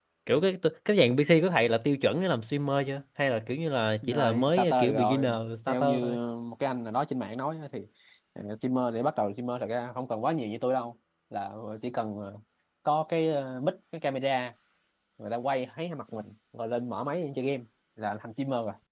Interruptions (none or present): present